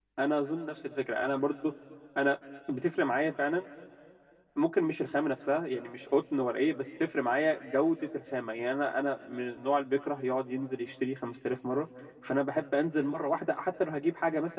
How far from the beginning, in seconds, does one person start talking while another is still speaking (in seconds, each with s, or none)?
none